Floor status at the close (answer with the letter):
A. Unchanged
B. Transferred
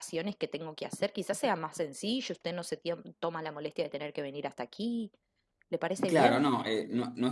B